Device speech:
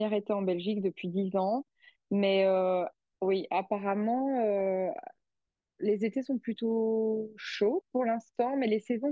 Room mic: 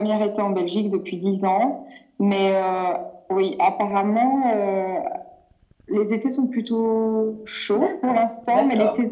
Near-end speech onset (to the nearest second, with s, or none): 8 s